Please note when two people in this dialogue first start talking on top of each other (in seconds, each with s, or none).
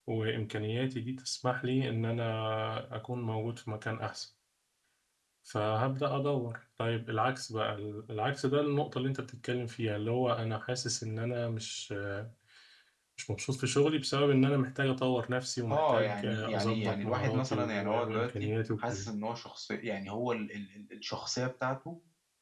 15.7 s